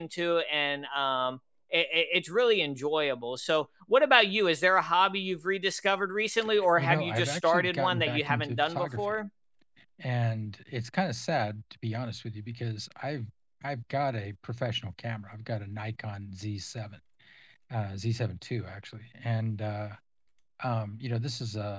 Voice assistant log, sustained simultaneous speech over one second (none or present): present